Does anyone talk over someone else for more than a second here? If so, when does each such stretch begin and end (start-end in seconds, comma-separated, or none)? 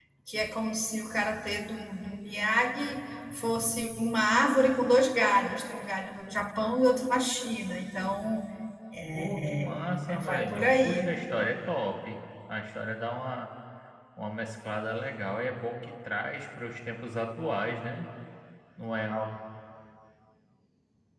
9.2-11.1